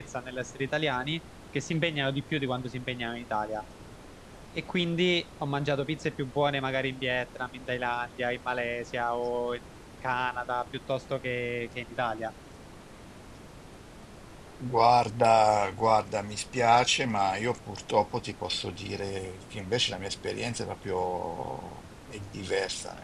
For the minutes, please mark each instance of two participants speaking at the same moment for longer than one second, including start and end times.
none

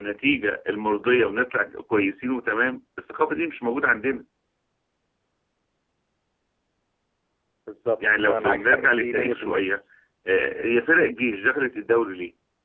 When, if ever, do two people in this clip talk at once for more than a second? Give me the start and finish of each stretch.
8.0-9.7

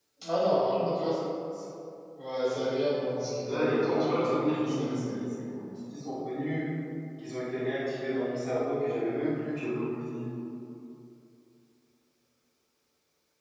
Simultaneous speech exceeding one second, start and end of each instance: 3.4-5.2

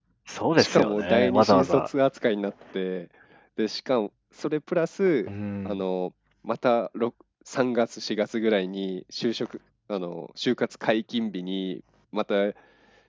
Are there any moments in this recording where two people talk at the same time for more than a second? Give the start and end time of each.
0.6-1.9

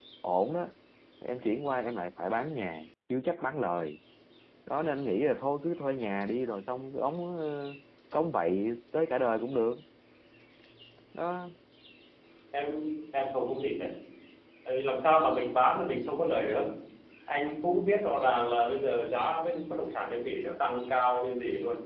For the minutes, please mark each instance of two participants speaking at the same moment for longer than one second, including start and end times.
none

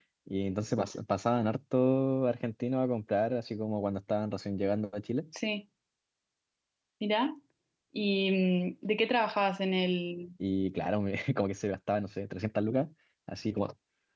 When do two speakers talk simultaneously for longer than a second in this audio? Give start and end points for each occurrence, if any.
none

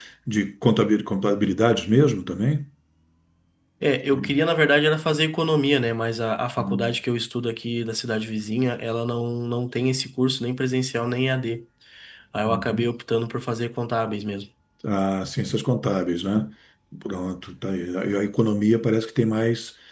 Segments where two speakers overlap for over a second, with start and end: none

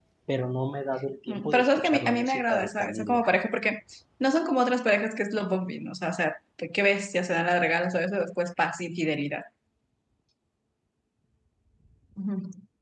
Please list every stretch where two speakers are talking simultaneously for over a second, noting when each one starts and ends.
1.3-3.2

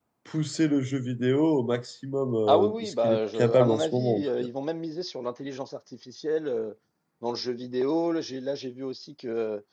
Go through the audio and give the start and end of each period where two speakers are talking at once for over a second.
2.5-4.5

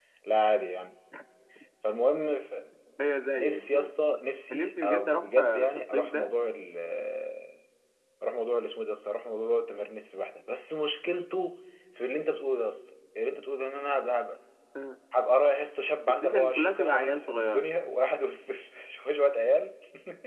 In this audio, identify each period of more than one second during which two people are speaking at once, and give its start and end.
4.5-6.3, 16.1-17.6

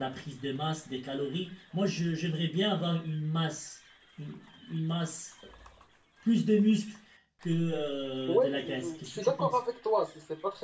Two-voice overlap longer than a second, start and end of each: 8.3-9.6

